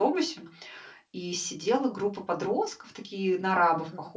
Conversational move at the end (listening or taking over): listening